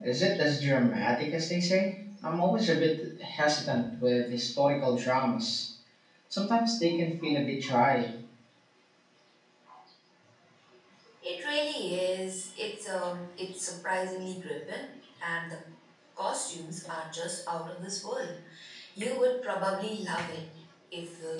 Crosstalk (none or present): none